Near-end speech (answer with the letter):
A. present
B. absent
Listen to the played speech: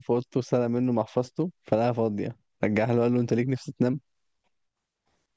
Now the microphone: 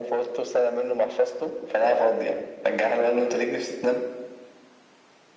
B